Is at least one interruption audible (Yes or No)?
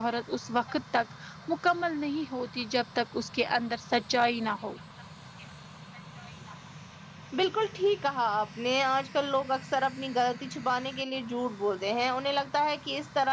No